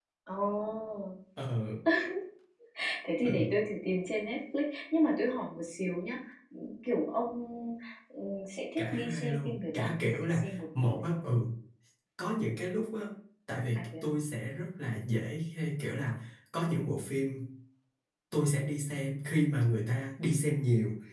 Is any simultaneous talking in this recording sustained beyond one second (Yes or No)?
Yes